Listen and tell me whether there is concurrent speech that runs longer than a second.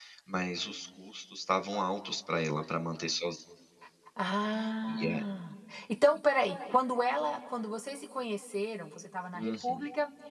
No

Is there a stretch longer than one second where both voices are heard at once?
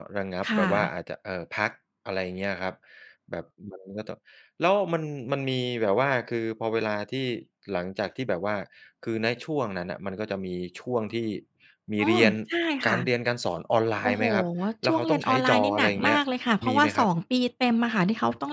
Yes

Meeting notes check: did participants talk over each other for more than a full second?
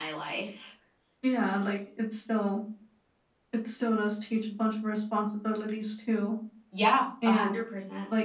No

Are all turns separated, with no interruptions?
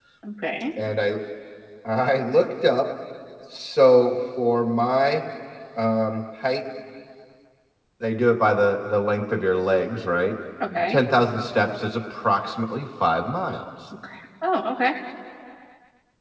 Yes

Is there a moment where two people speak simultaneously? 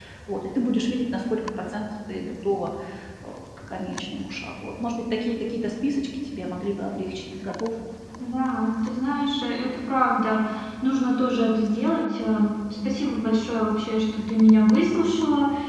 No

